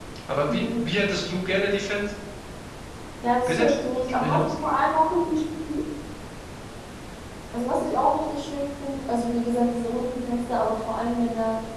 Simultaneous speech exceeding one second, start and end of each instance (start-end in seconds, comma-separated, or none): none